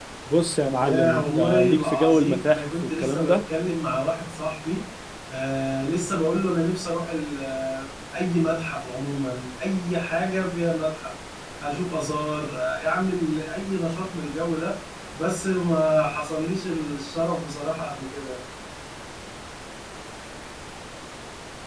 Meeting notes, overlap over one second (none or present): present